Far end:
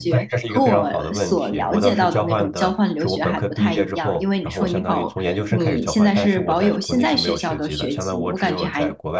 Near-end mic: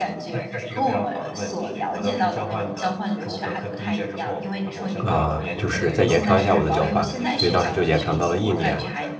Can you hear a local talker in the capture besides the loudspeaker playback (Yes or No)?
Yes